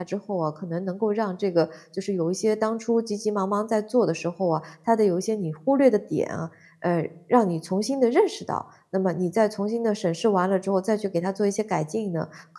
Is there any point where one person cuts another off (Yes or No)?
No